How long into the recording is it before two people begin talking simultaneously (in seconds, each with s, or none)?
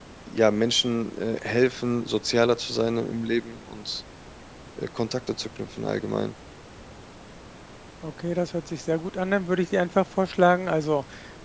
none